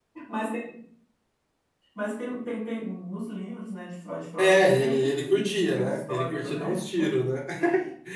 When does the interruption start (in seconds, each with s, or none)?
4.4 s